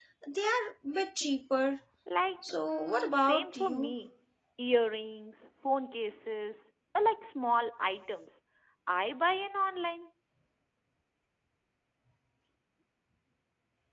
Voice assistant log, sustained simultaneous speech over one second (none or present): present